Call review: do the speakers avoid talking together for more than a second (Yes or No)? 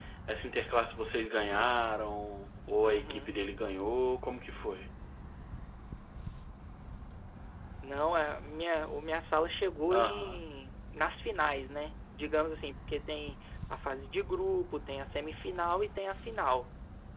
Yes